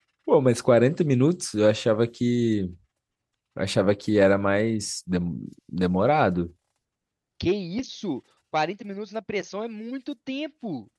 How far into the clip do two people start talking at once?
none

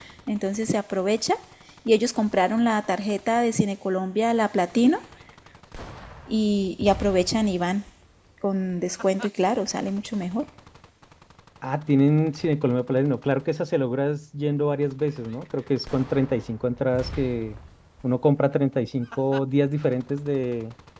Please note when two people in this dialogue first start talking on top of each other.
none

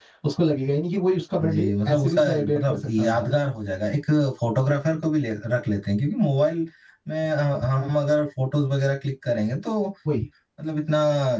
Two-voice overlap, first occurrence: 1.4 s

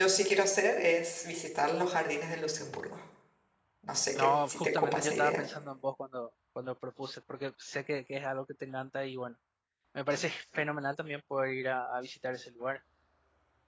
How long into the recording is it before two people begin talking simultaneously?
4.2 s

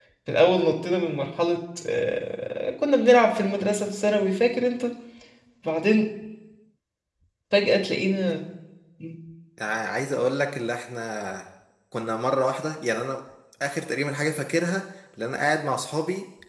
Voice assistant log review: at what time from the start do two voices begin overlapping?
none

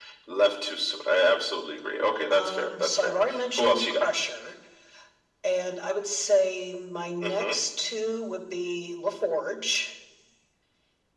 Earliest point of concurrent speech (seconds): 2.3 s

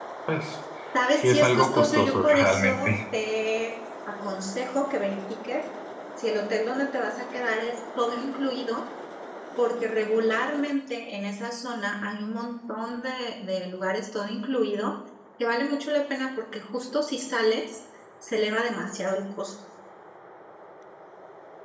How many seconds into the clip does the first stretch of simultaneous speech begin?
1.1 s

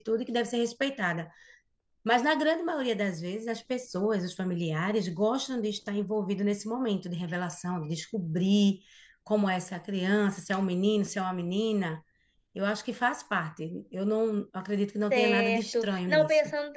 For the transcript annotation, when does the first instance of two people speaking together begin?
15.1 s

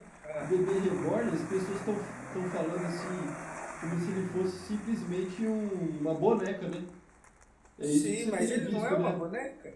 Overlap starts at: 7.8 s

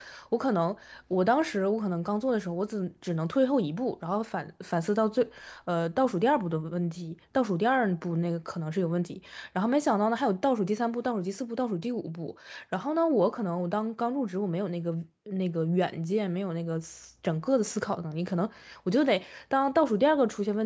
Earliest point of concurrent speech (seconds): none

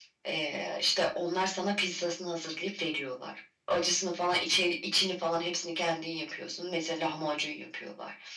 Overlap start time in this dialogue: none

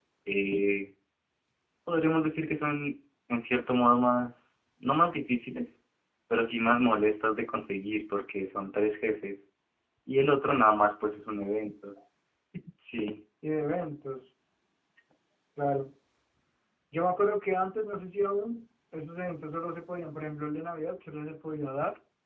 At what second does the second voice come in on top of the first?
none

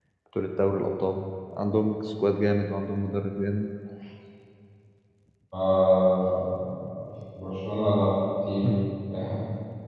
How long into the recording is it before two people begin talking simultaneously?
none

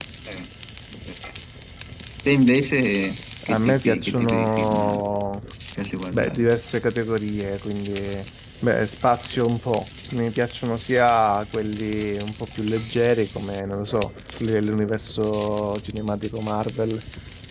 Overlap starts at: 3.5 s

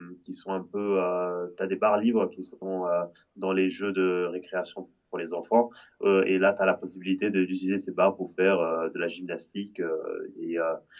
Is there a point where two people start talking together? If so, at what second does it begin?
none

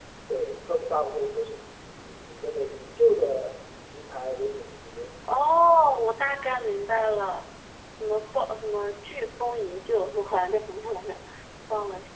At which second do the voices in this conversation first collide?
none

